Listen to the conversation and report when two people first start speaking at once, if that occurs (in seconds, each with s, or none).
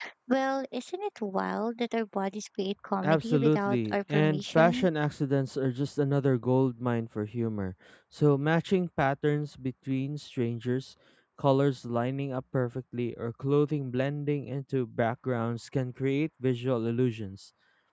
3.0 s